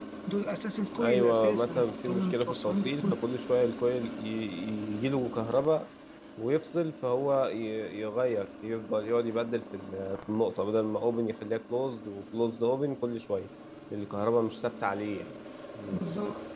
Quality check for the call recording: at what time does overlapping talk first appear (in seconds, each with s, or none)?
1.0 s